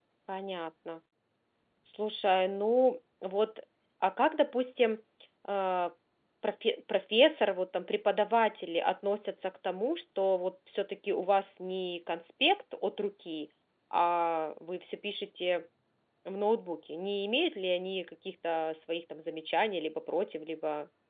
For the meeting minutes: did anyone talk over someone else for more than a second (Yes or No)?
No